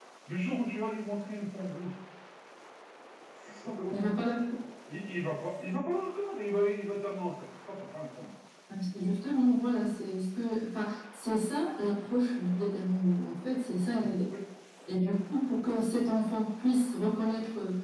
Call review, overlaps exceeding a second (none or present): none